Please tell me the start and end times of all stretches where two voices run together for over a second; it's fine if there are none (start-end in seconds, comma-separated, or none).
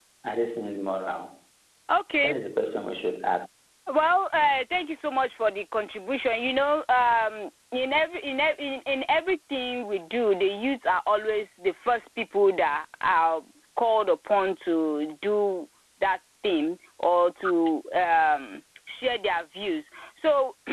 none